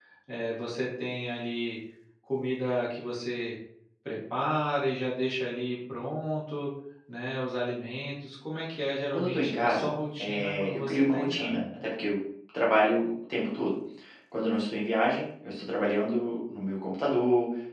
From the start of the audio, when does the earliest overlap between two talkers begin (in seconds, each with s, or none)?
9.1 s